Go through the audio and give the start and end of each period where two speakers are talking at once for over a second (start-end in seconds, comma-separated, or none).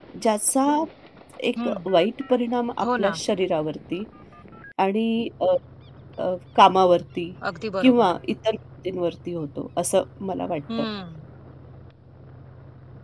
none